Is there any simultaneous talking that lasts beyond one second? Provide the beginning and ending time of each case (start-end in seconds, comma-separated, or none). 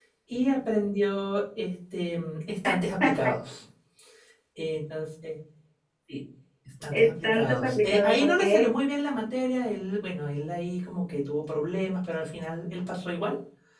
6.9-8.7